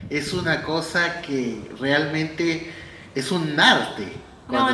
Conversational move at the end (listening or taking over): taking over